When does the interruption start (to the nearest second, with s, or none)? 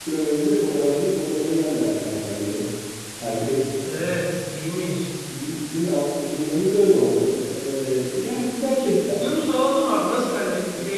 none